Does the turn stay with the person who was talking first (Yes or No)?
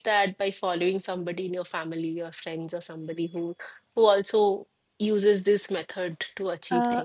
No